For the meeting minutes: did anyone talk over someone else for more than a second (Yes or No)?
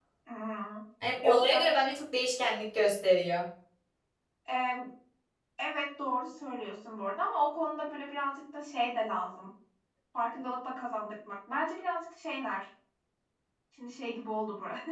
No